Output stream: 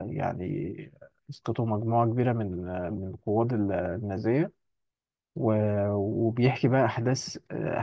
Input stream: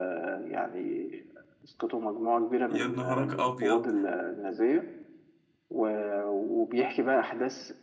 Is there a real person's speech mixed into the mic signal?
Yes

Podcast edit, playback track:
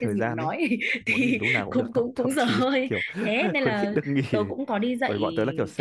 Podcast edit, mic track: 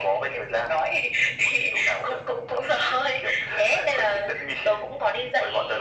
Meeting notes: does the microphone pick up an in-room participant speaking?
No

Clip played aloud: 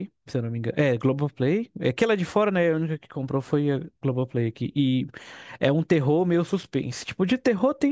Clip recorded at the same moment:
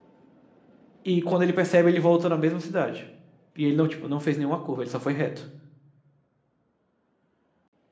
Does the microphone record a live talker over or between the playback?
Yes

